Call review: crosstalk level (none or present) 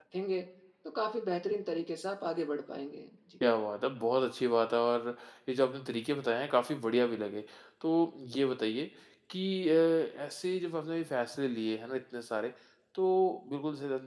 none